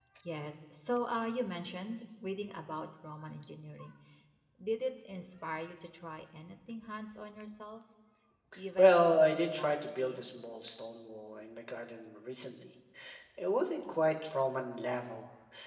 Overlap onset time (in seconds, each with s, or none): 8.8 s